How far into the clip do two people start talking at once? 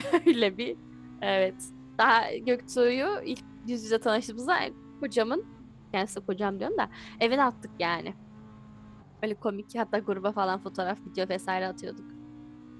none

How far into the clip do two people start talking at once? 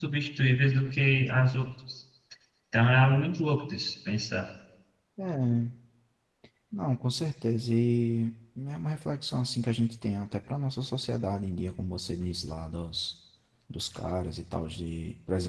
none

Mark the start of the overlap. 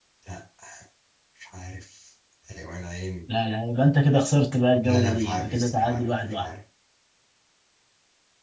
4.8 s

